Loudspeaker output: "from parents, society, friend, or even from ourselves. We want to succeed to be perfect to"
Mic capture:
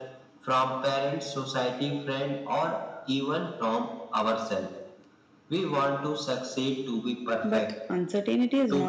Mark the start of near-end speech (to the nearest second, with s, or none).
7 s